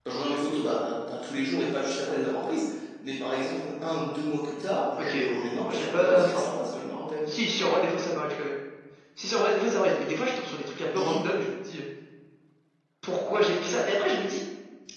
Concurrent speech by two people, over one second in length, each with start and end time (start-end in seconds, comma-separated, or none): 5.0-6.4